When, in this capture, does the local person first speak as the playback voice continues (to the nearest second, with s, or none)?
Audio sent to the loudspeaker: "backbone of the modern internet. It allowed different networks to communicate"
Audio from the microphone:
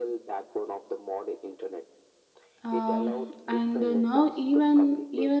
3 s